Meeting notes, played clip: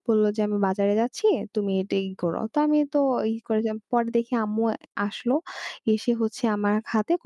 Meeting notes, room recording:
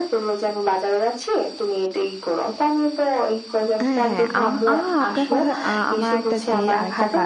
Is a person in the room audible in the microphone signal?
Yes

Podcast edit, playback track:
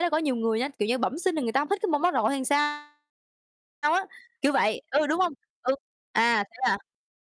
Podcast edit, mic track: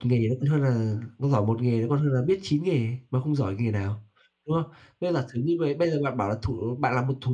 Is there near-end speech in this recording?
Yes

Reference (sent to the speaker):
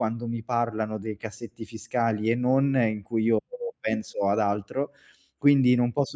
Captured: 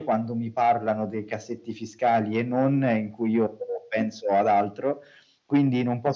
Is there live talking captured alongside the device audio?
No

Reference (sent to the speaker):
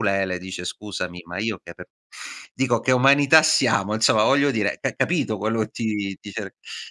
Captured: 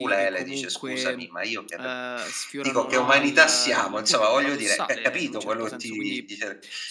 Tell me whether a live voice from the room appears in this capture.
Yes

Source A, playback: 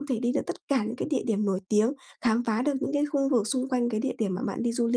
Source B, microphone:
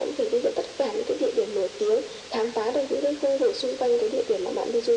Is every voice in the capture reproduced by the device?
Yes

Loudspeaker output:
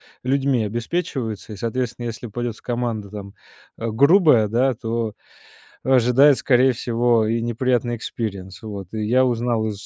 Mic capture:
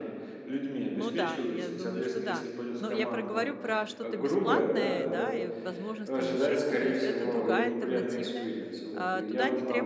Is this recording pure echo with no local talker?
No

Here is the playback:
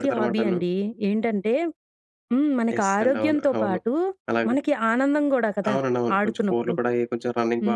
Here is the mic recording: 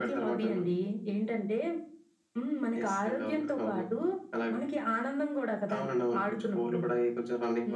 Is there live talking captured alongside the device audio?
No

